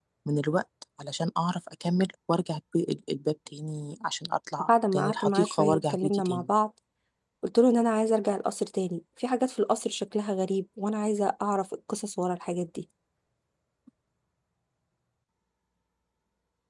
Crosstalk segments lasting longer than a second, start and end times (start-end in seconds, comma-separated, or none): 4.6-6.5